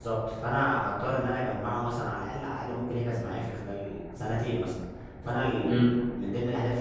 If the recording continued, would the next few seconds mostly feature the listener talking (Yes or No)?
No